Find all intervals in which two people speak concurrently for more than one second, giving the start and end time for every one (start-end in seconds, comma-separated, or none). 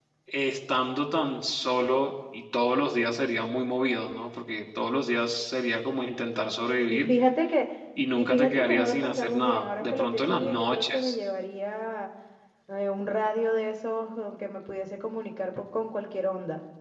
8.2-11.1